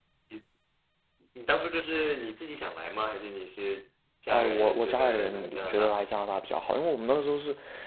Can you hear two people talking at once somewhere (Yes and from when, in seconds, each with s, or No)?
Yes, from 4.3 s